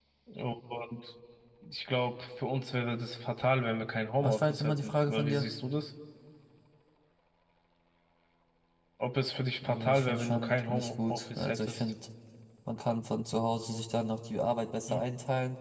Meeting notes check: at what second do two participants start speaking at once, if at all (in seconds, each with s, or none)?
4.2 s